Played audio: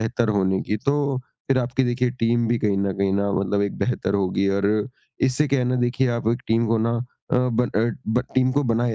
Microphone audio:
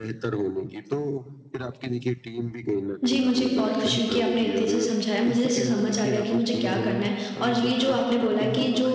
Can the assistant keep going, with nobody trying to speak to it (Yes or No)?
No